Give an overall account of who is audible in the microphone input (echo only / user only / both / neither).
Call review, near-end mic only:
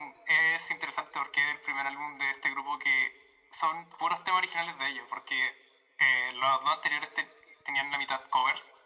echo only